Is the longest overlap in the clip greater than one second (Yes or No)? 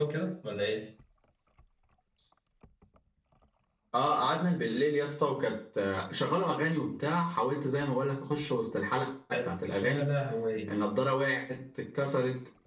No